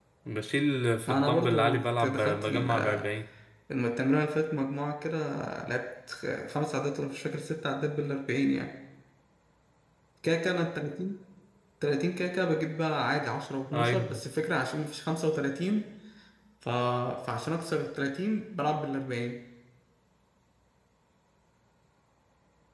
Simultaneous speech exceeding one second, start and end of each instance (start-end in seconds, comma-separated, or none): 1.1-3.0